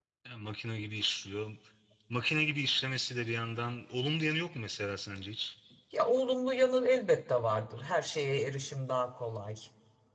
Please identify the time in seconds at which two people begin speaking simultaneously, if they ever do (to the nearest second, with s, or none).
none